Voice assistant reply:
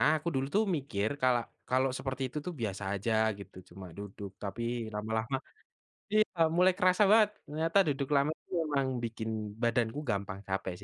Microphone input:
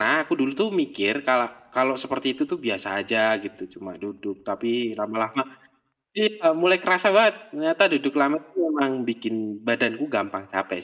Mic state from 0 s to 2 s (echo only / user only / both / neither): echo only